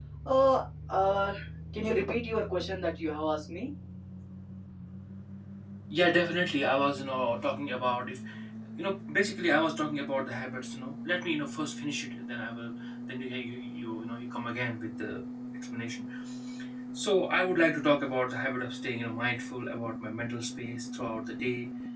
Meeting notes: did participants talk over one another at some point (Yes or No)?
No